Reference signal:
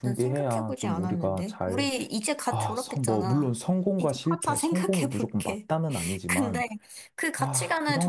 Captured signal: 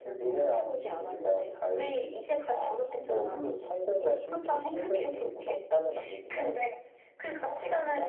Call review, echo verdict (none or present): present